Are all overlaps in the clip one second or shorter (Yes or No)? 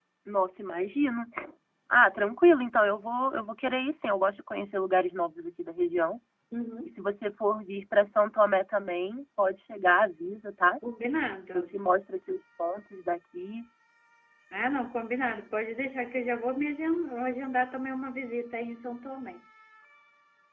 Yes